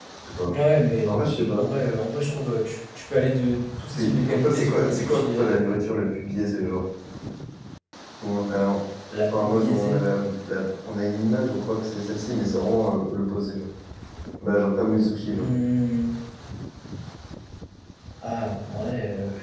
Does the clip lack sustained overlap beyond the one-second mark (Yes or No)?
No